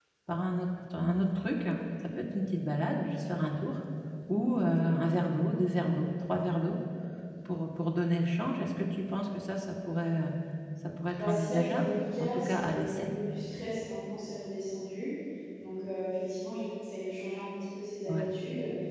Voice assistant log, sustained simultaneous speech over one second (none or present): present